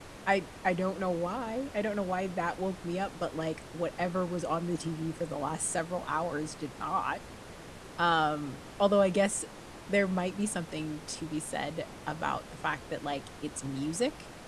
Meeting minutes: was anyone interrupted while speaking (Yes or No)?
No